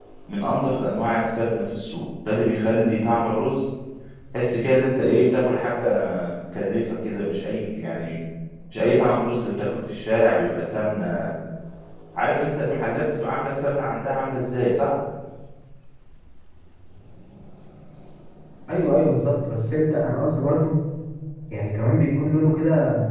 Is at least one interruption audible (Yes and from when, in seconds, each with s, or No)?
No